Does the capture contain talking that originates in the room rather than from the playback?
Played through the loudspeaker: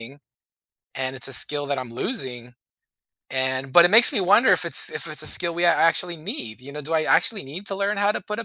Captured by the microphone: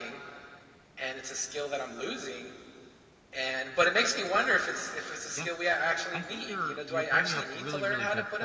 Yes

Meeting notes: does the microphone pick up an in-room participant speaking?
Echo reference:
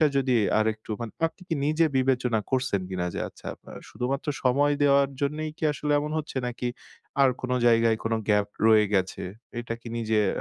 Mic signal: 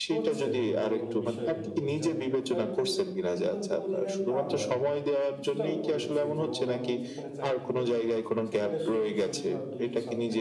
Yes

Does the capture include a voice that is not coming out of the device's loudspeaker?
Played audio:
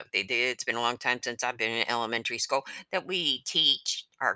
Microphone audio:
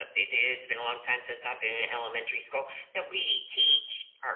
No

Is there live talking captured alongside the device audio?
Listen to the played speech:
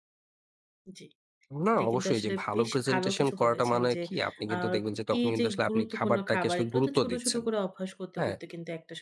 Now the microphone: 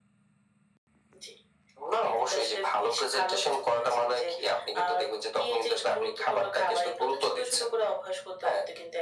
No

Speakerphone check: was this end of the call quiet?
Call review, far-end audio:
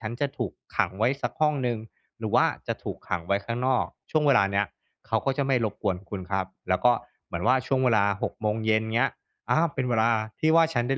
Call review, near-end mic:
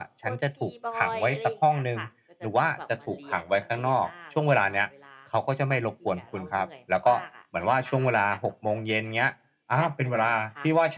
No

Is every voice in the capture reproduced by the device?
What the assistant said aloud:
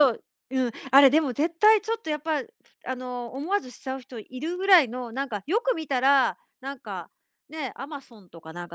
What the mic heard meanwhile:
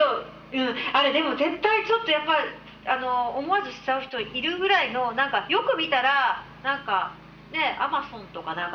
Yes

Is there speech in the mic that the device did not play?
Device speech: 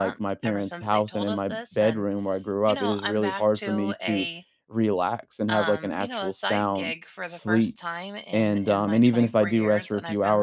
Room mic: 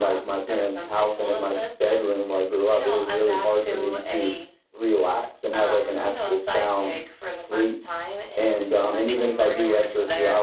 Yes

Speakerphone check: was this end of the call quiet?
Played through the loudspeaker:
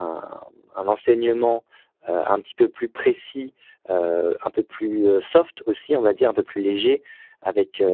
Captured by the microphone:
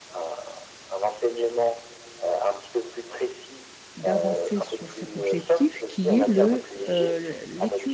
No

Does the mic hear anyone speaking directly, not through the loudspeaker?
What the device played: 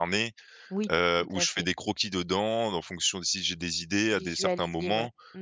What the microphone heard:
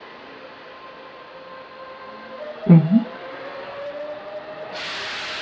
Yes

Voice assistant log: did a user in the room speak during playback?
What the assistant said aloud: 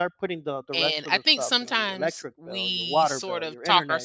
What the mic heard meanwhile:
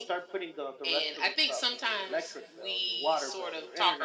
No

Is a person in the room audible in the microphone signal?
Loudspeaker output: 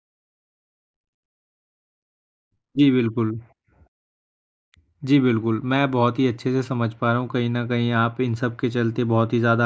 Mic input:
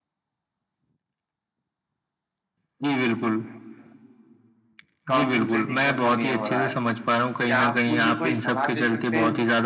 Yes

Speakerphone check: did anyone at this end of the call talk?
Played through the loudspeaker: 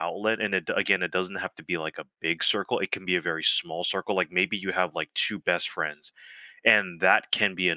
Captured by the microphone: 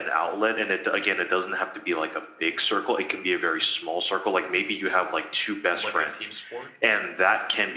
Yes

